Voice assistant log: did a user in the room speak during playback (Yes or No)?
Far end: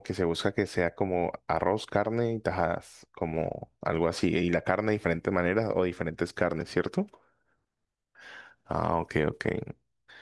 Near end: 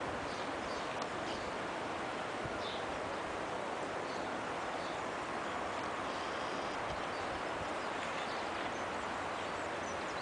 No